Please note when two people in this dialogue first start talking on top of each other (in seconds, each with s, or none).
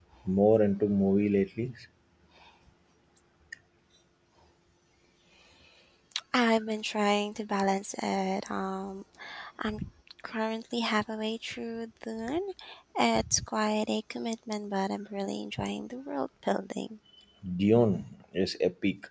none